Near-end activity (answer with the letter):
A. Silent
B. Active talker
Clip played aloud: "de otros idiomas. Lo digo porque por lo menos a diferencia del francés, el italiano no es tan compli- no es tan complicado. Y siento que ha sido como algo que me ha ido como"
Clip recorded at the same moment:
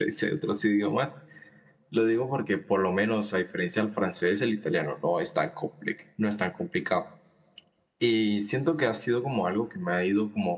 A